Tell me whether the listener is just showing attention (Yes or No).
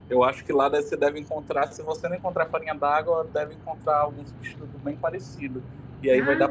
Yes